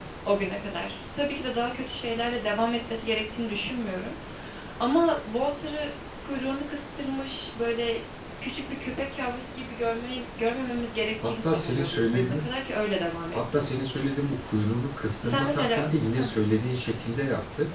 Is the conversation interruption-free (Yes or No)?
No